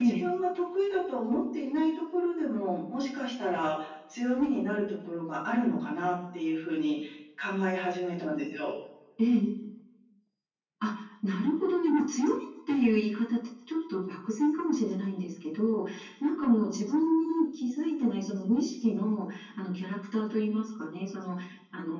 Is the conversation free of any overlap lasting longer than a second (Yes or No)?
Yes